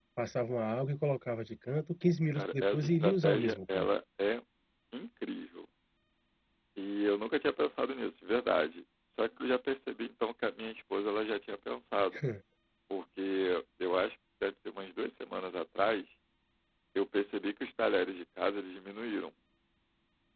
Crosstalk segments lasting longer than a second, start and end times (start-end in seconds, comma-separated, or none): 2.3-3.9